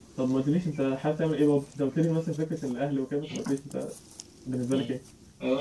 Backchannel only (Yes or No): No